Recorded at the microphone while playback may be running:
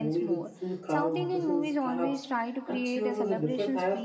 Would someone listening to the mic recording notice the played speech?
Yes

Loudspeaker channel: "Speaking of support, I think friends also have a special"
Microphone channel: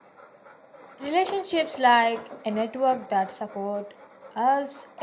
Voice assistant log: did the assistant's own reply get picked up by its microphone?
No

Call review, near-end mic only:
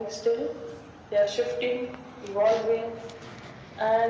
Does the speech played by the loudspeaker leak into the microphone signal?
Yes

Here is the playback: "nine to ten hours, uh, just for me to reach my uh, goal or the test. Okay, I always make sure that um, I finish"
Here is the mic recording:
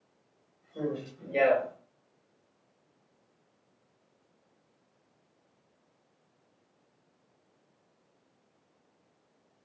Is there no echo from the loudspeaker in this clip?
Yes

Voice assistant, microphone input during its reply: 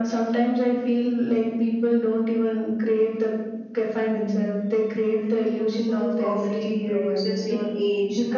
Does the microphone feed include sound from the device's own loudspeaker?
Yes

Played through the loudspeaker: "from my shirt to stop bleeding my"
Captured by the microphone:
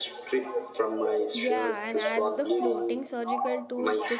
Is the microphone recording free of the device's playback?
No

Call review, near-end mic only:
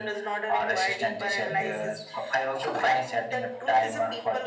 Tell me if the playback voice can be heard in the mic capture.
Yes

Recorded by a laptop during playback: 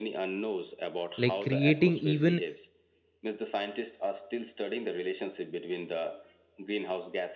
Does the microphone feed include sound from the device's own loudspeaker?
Yes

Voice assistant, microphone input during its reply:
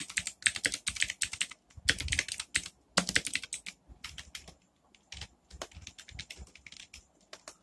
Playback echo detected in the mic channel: No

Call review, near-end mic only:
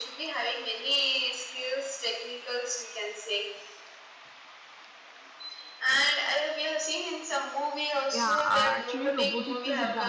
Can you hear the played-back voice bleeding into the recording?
Yes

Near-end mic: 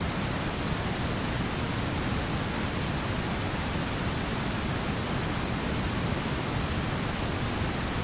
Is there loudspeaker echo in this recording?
No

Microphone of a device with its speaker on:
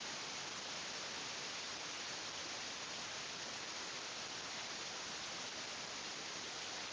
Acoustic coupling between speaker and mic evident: No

